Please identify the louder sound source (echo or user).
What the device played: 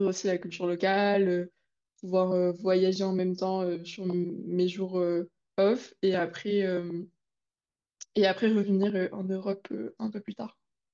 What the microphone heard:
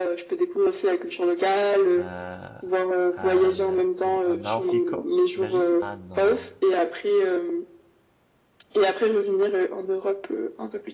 echo